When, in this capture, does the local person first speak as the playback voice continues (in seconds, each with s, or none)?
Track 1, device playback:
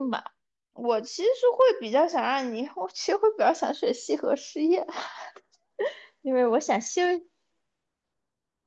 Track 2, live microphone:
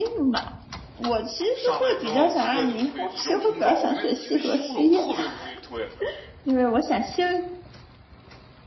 1.5 s